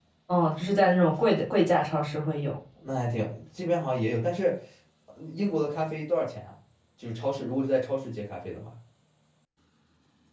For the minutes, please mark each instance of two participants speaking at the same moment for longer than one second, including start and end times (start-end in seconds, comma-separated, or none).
none